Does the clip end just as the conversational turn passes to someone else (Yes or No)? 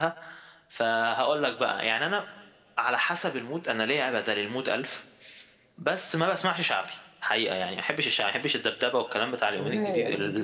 Yes